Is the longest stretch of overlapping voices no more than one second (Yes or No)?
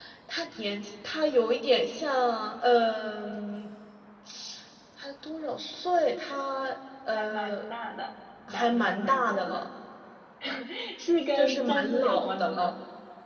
No